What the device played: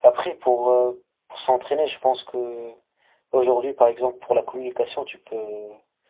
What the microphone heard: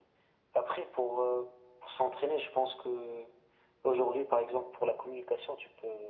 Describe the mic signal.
echo only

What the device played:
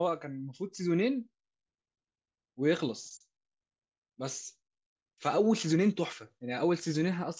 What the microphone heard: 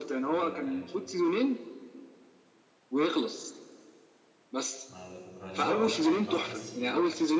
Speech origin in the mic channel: both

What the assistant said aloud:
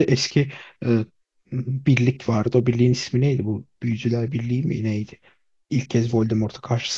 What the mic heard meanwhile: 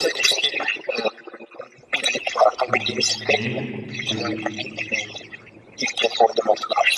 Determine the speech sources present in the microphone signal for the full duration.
both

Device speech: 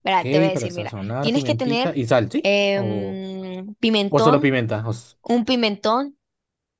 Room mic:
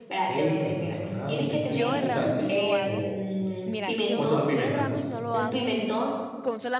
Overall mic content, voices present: both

